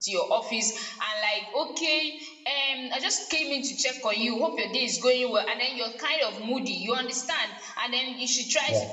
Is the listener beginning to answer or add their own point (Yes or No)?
No